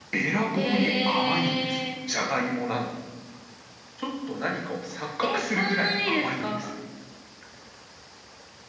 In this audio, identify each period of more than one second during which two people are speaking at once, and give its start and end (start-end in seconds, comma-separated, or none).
0.5-1.8, 5.2-6.7